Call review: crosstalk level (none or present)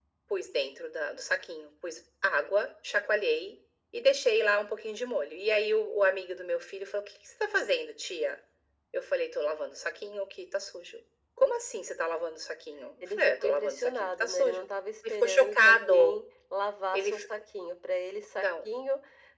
present